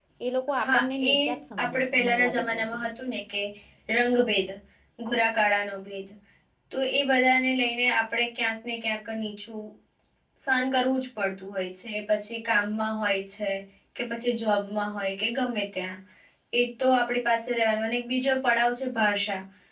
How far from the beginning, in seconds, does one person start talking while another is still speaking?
0.6 s

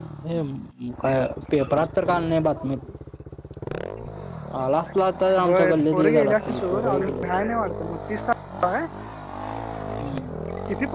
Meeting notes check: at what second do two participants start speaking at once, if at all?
5.4 s

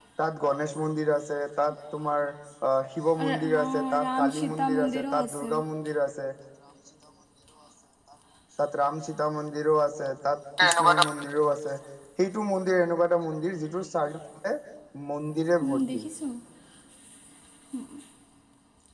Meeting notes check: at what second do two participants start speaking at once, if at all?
3.2 s

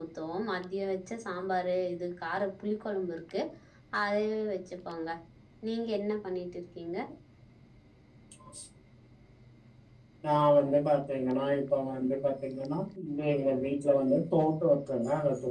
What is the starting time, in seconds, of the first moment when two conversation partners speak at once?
none

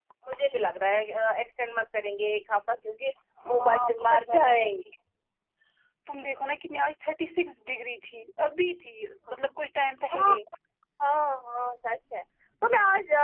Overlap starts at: 3.4 s

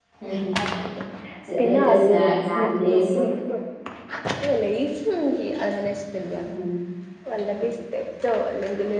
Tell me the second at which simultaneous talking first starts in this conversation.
1.6 s

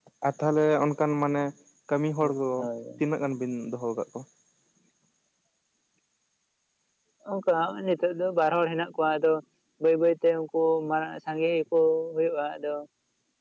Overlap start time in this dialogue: none

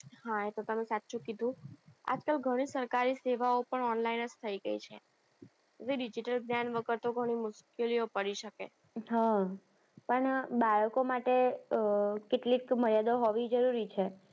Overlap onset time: none

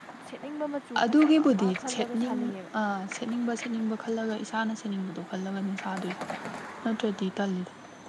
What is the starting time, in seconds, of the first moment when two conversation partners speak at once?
1.0 s

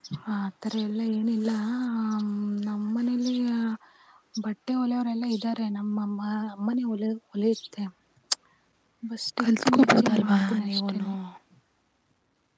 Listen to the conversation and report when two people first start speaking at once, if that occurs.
9.4 s

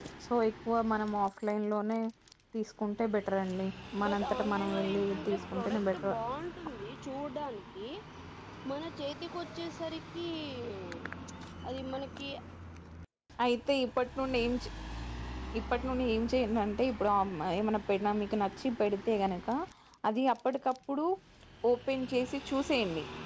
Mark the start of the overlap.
4.0 s

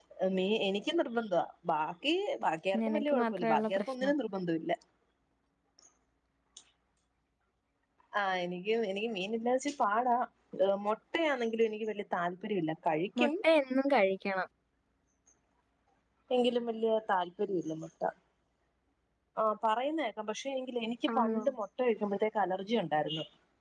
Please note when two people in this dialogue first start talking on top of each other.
2.9 s

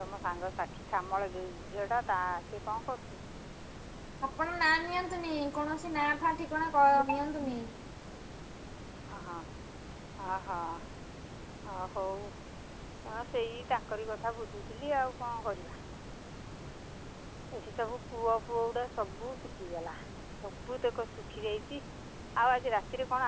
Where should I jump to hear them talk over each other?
none

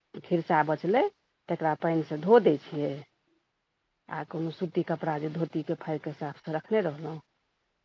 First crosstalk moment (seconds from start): none

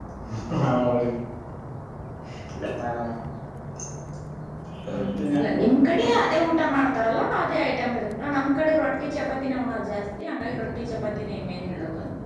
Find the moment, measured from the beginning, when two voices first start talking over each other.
5.0 s

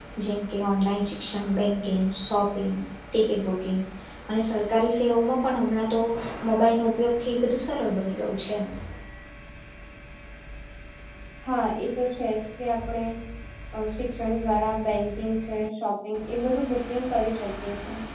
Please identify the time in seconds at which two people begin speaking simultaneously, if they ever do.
none

